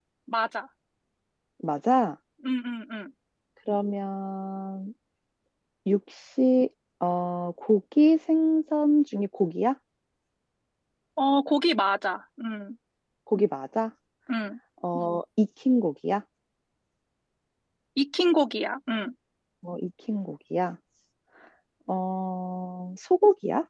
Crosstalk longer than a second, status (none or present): none